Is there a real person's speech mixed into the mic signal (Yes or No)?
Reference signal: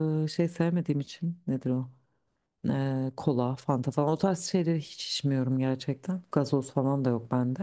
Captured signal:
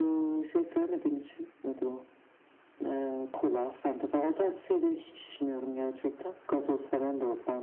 No